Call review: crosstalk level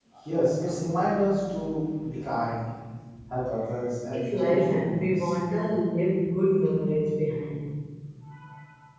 present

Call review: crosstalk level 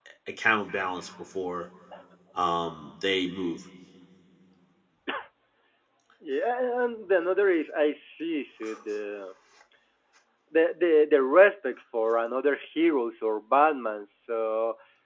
none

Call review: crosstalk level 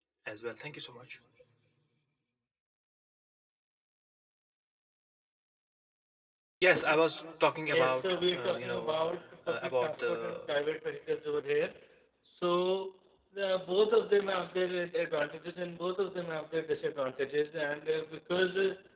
present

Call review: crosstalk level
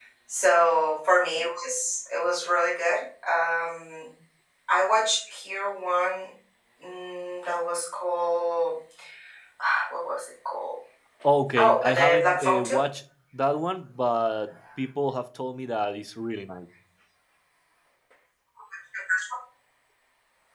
present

